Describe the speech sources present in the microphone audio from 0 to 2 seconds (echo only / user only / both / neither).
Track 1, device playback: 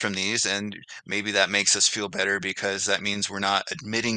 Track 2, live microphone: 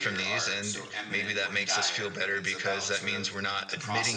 both